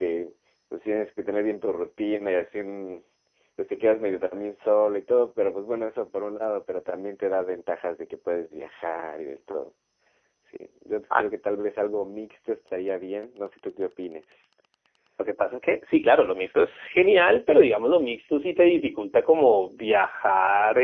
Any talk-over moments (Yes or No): No